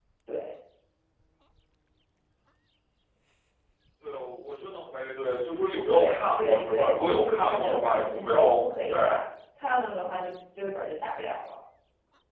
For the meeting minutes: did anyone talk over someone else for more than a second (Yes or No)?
Yes